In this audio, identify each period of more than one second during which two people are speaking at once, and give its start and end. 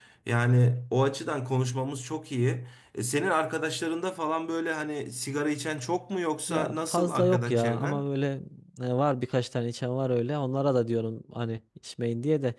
6.5-8.0

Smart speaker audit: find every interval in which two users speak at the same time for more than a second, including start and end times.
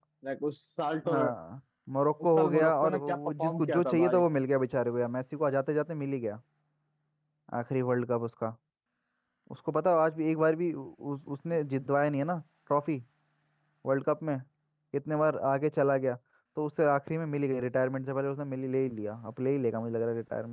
2.2-4.2

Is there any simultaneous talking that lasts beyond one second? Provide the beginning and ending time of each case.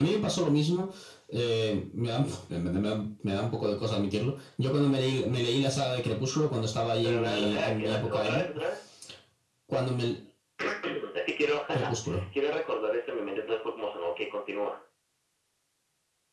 7.0-8.4

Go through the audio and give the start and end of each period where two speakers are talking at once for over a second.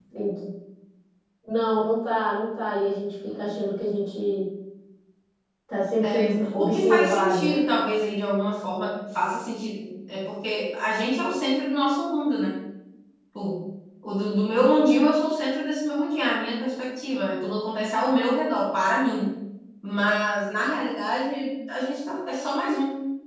6.0-7.7

